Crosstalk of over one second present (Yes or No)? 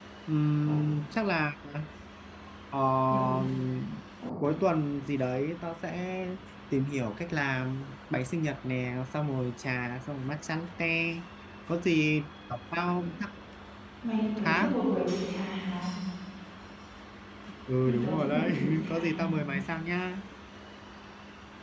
Yes